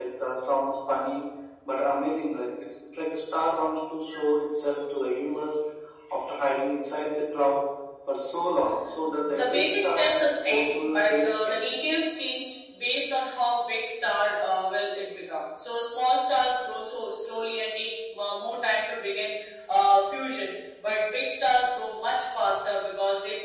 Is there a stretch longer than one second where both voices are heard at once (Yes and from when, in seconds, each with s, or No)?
Yes, from 9.0 s